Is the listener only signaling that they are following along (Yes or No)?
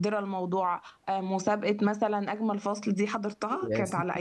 No